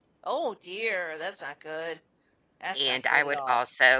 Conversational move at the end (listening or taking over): taking over